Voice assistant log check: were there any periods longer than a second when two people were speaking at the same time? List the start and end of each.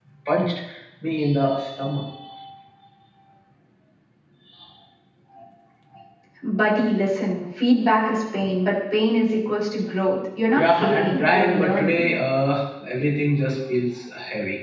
10.5-12.1

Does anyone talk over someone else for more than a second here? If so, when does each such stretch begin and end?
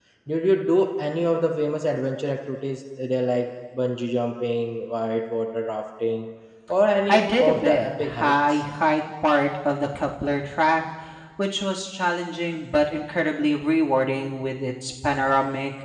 7.1-8.6

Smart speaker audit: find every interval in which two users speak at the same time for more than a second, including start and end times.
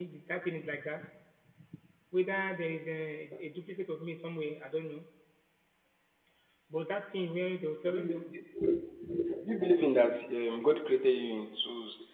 none

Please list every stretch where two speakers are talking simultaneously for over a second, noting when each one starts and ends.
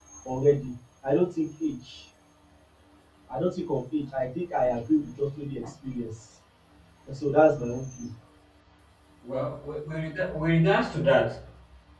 none

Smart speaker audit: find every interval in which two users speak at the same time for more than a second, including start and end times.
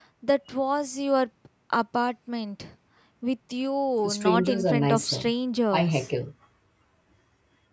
4.0-5.3

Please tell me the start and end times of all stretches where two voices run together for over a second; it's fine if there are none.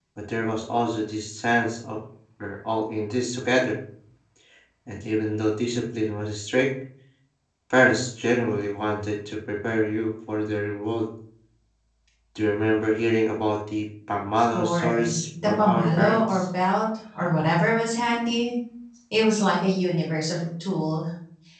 14.5-16.4

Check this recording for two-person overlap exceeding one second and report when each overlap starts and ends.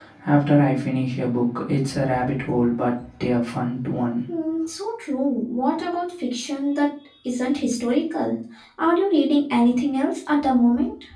none

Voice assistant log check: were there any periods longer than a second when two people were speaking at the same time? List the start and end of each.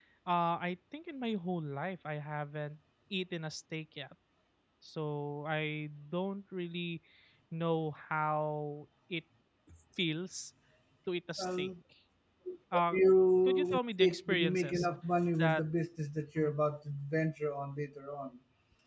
13.4-14.9

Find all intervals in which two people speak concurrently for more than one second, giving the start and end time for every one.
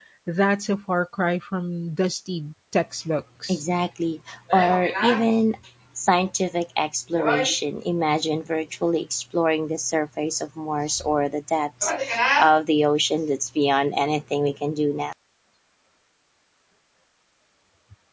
none

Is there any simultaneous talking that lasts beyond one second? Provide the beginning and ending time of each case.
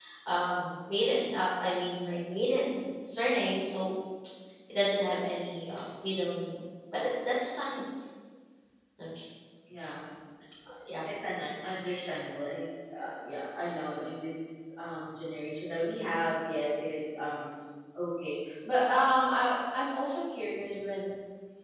none

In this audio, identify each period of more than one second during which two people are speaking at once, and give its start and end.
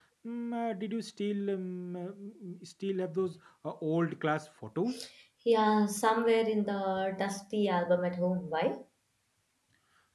none

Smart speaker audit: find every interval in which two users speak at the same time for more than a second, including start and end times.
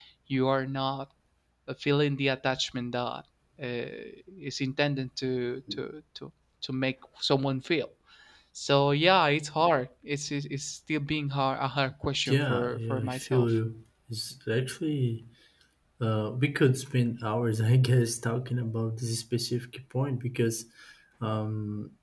12.2-13.5

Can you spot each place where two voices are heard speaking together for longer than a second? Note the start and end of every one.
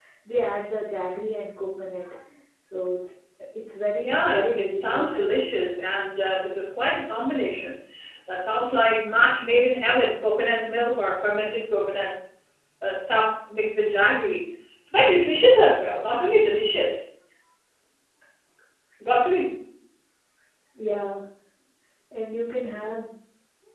4.0-5.5

